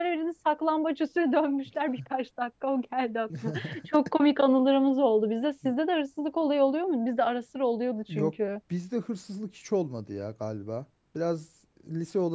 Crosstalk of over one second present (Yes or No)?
No